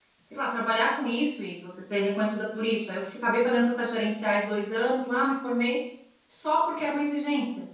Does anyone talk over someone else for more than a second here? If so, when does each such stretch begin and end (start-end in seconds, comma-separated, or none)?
none